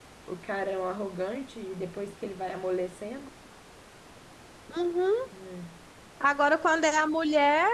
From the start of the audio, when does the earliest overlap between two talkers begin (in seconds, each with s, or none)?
none